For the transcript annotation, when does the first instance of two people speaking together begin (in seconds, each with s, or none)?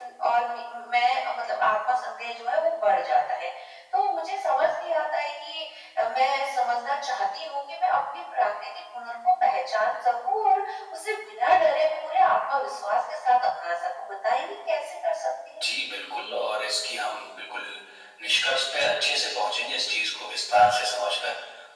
none